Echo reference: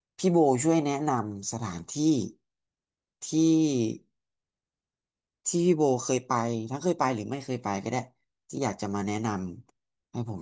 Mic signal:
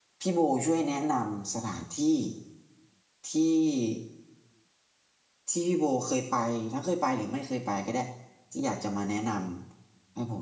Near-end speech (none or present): none